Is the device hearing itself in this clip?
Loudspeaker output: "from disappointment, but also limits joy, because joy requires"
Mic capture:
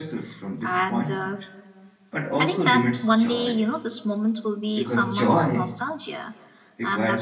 Yes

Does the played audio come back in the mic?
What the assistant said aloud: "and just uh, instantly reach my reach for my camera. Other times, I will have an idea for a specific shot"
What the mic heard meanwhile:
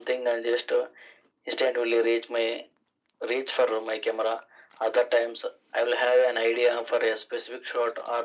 Yes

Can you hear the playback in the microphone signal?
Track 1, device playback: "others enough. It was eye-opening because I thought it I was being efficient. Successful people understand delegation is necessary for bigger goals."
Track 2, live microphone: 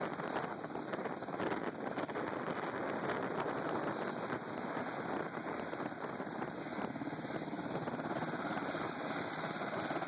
No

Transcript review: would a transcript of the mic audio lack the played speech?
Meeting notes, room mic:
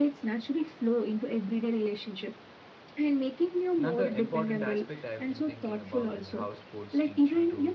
No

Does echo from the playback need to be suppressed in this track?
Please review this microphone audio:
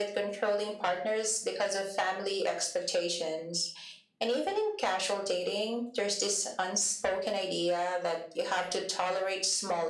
Yes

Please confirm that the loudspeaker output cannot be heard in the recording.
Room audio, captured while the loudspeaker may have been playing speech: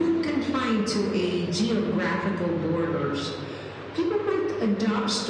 No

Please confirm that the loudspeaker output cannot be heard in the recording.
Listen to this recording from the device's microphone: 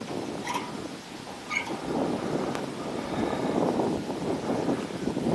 Yes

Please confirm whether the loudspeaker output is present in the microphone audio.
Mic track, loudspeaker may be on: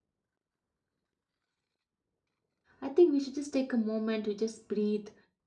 No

